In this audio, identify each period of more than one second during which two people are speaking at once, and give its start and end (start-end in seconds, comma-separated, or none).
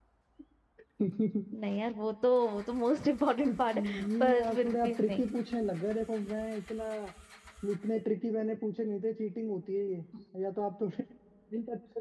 3.4-5.2